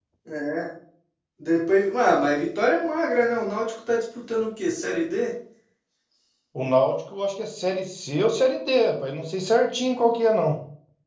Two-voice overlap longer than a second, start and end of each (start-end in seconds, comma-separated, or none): none